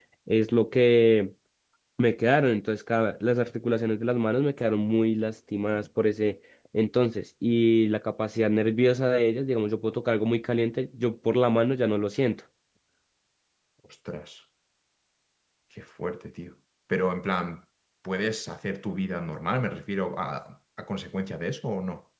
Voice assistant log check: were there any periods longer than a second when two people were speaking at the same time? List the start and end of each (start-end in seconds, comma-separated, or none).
none